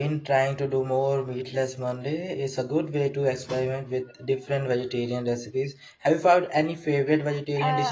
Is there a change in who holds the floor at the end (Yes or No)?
Yes